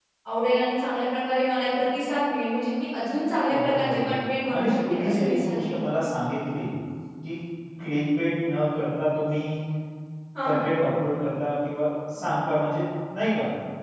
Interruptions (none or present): present